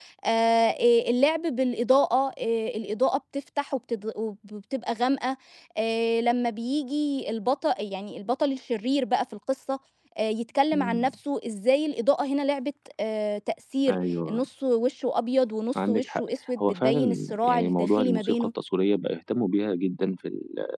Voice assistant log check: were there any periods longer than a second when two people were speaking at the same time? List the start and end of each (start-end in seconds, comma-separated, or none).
16.6-18.5